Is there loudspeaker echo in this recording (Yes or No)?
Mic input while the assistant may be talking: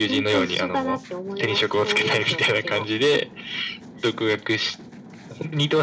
Yes